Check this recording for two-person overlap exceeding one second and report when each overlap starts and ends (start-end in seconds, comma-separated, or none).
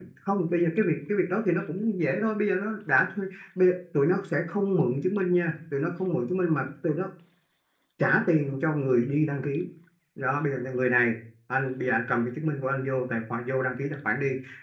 none